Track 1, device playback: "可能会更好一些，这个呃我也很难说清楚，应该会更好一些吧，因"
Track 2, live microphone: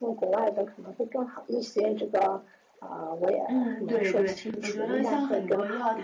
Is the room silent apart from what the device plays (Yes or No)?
No